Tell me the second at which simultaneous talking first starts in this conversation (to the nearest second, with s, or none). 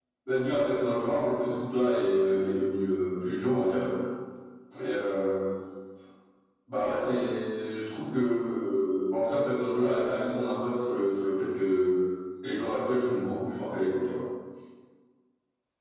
none